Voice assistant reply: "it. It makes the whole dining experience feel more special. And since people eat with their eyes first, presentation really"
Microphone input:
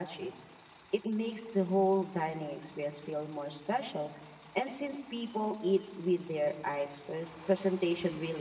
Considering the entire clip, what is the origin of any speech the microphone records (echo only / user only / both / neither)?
echo only